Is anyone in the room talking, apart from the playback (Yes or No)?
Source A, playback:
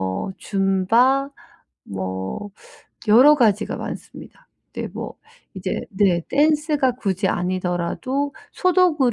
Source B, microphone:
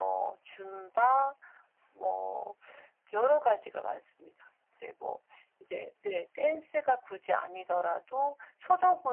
No